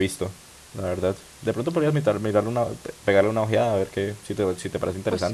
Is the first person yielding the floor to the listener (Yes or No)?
Yes